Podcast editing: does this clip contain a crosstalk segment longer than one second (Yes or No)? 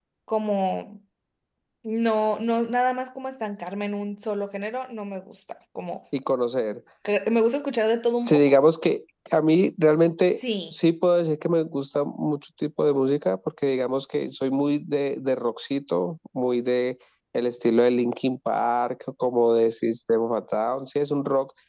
No